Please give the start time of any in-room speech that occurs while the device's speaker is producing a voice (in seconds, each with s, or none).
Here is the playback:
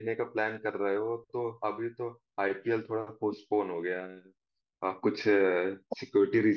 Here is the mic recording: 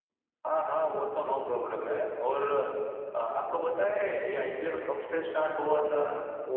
0.5 s